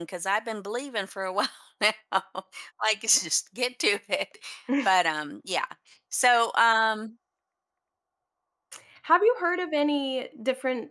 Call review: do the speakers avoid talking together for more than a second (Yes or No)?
Yes